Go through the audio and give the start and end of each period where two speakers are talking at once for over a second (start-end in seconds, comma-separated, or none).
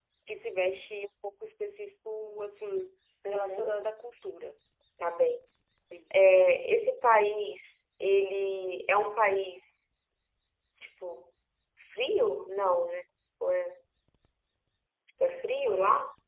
none